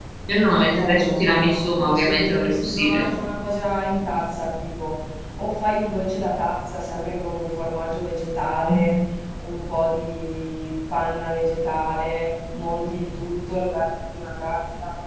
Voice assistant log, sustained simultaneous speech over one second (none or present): present